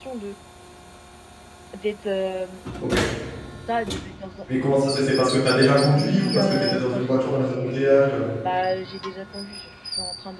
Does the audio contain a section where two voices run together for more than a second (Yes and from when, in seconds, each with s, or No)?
Yes, from 5.9 s